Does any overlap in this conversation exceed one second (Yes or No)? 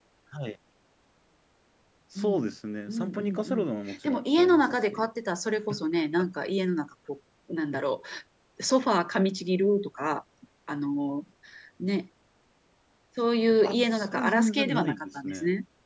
Yes